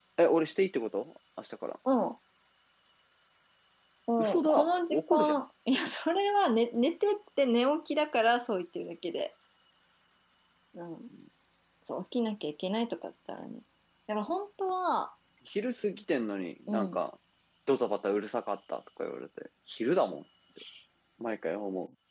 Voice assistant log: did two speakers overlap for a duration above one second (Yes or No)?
Yes